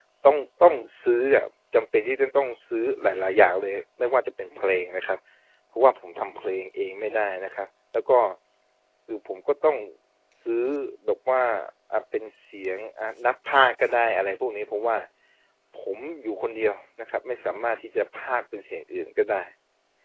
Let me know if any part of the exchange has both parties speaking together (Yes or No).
No